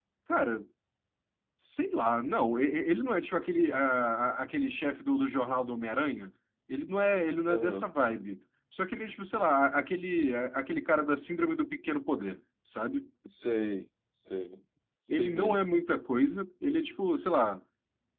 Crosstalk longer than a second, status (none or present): none